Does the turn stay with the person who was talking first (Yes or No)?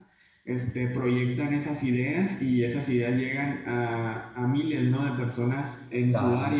Yes